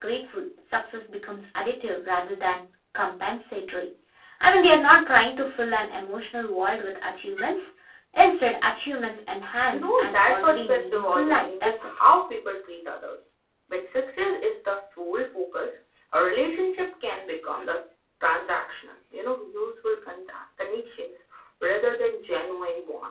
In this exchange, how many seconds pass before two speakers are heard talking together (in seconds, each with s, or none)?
9.6 s